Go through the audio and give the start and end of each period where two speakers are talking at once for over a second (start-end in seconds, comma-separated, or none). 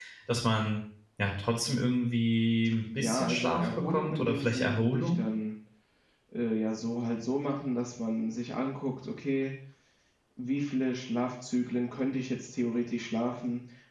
3.0-5.2